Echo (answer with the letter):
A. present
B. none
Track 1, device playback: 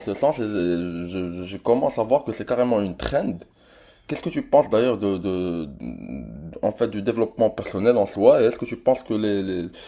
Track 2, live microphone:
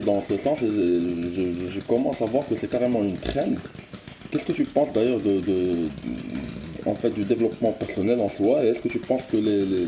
A